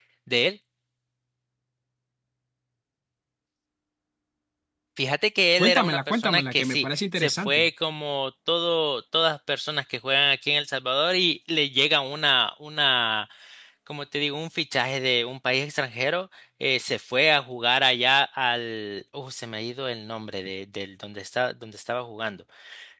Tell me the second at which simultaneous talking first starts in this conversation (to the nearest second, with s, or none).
6 s